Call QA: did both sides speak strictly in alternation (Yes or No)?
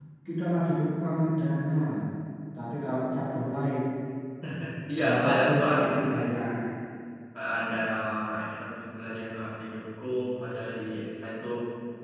No